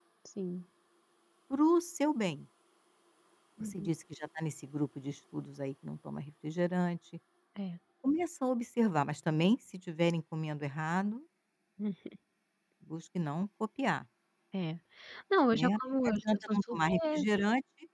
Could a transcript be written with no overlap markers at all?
No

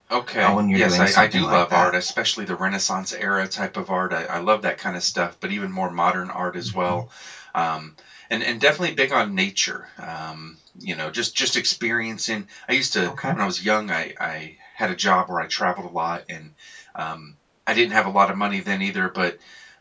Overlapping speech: Yes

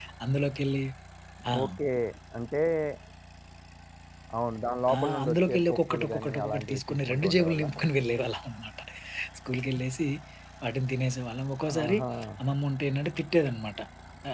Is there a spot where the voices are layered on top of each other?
Yes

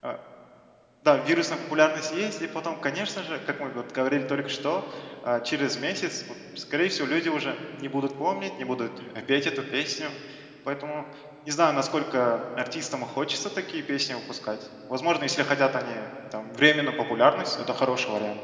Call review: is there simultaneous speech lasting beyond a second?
No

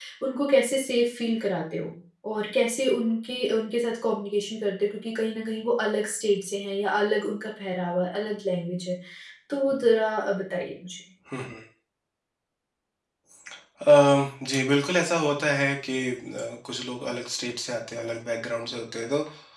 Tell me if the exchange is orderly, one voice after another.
Yes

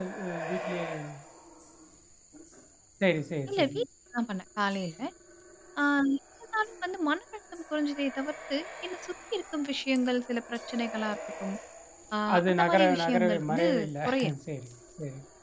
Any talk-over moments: Yes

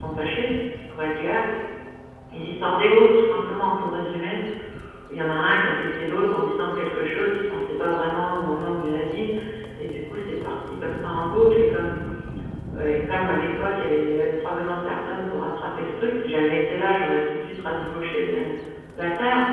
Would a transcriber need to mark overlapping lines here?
No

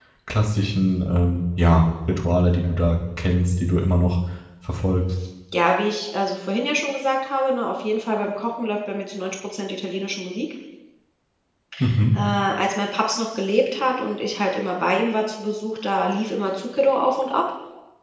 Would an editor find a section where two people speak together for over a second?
No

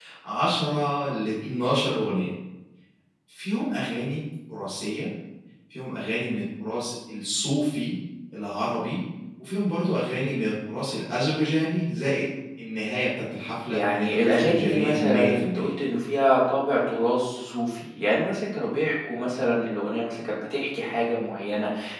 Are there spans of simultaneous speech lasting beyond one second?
Yes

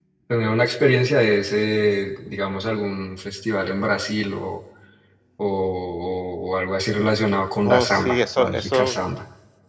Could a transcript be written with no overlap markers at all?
No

